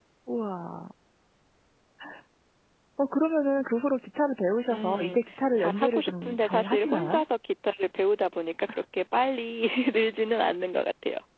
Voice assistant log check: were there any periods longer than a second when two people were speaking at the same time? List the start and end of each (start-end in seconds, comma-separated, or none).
5.6-7.2